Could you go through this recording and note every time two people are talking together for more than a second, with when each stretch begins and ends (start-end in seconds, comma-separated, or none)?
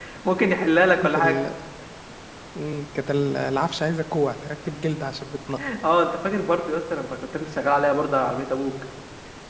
none